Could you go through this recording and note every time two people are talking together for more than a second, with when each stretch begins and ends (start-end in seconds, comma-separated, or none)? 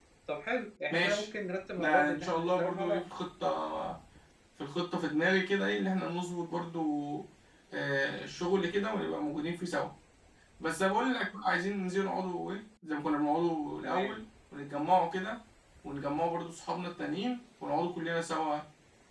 1.8-3.0